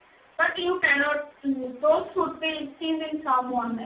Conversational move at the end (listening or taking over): taking over